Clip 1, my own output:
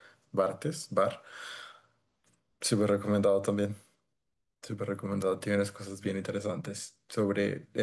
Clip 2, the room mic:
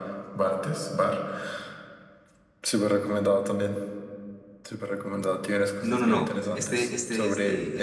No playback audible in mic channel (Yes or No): No